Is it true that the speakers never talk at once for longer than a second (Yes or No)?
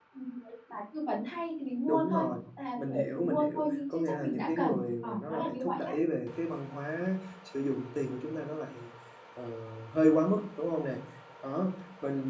No